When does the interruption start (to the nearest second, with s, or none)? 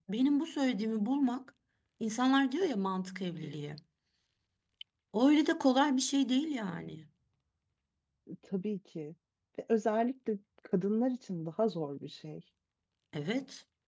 none